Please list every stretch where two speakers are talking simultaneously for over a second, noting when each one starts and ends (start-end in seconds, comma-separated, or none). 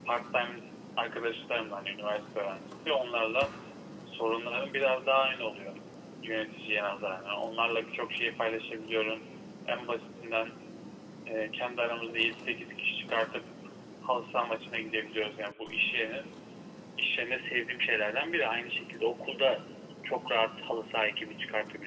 none